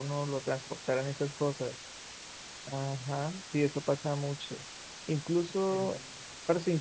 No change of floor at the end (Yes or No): Yes